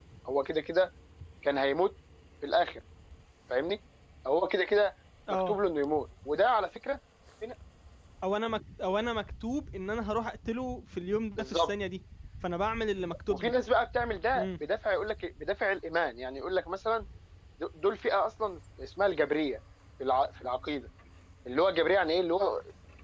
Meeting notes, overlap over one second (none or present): none